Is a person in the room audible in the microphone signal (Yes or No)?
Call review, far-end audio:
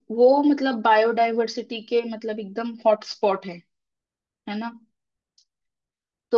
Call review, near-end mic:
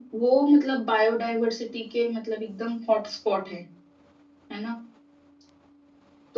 No